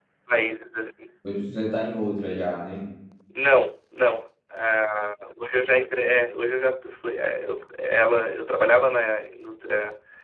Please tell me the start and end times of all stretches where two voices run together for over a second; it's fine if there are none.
none

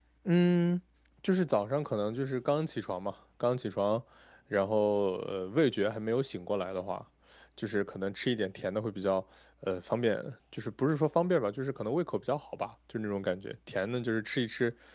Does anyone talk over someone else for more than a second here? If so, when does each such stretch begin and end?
none

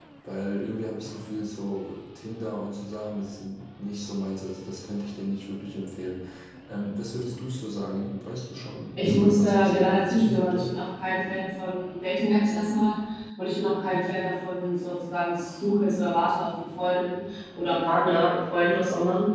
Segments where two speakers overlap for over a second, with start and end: 9.0-10.7

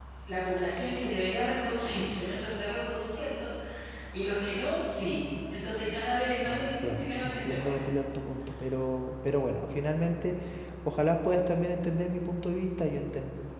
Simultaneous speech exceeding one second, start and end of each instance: 6.5-7.8

